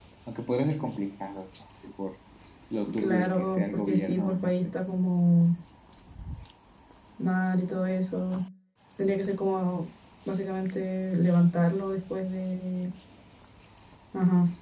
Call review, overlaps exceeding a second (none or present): present